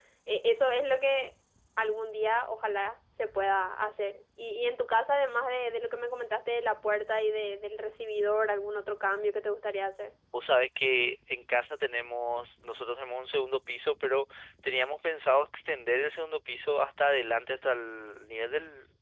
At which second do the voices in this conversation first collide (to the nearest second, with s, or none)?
none